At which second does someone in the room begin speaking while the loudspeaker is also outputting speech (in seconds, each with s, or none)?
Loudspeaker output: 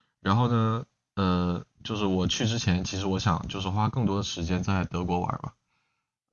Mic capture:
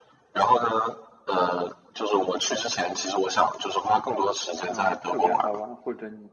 4.7 s